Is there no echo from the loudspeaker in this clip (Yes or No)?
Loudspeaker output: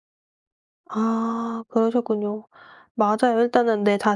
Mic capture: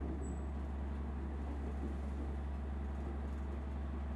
Yes